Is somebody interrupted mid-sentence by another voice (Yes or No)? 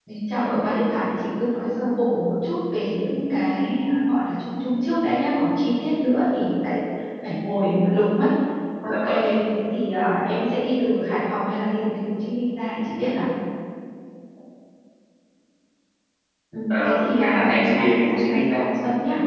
Yes